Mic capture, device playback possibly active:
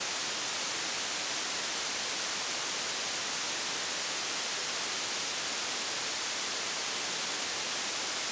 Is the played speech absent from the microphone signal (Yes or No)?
Yes